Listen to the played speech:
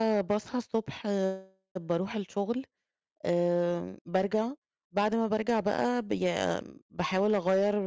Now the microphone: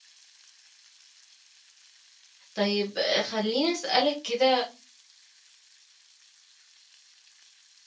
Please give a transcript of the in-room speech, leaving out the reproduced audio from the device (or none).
طيب خلّيني أسألِك كده